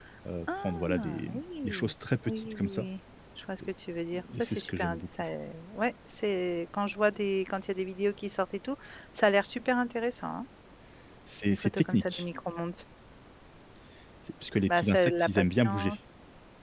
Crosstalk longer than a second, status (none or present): present